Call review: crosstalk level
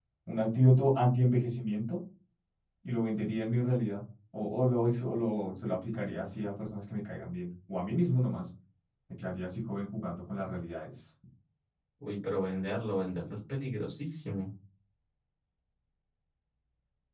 none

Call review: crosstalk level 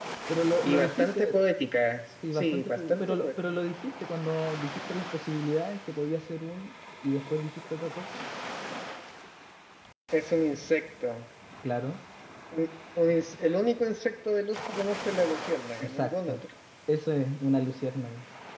present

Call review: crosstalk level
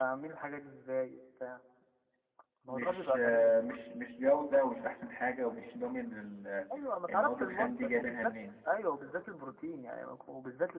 present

